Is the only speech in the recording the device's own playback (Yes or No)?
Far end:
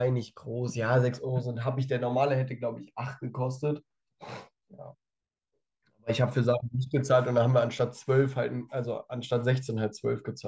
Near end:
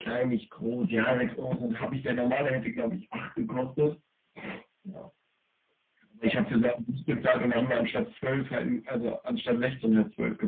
Yes